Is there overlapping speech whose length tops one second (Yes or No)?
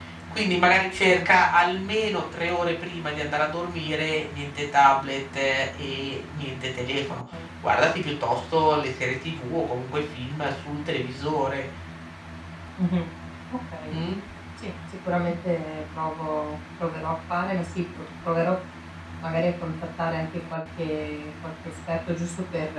No